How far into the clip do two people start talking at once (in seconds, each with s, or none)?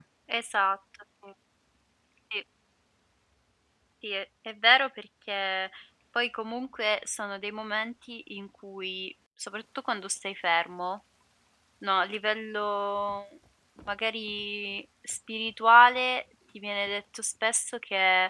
none